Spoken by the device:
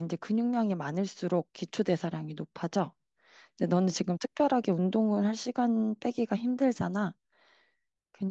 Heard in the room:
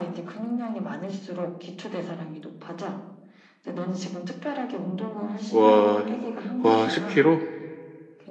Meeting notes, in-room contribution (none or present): present